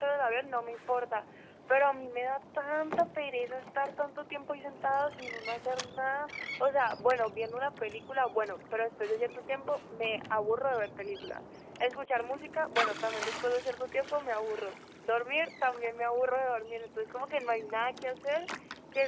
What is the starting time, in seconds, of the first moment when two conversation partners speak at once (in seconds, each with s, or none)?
none